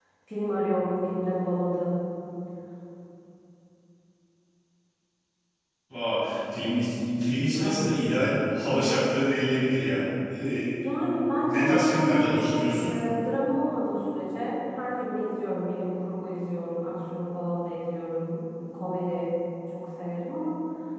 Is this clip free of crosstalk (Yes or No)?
No